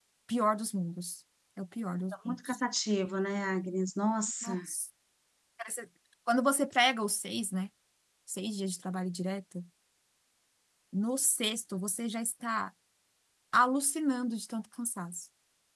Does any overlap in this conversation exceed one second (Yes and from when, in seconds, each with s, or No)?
No